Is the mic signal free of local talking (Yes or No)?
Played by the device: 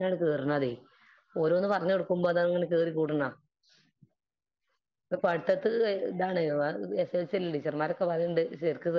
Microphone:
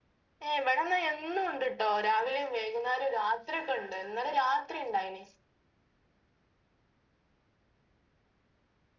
No